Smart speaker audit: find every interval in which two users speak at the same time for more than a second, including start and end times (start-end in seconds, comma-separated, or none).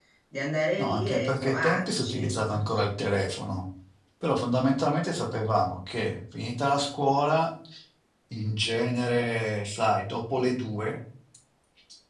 0.8-2.6